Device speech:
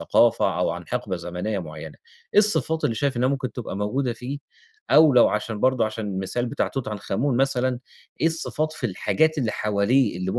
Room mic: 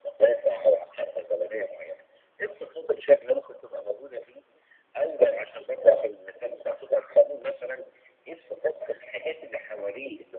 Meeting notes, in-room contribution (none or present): none